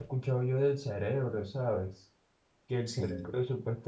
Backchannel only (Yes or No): Yes